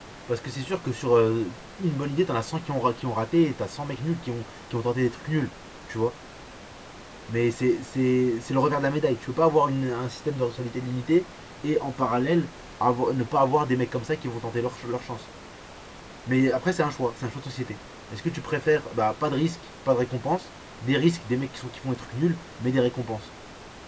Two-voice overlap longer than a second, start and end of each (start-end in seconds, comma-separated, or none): none